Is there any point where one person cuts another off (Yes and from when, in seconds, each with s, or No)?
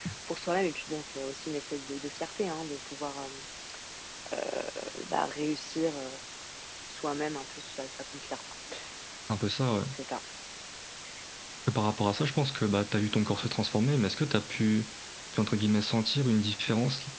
No